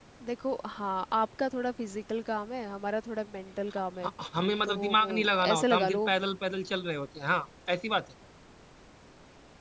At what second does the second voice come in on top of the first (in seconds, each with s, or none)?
4.6 s